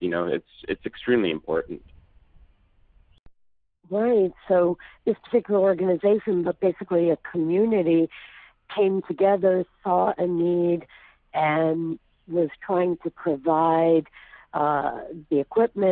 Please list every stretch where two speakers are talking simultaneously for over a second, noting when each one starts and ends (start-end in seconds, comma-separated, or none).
none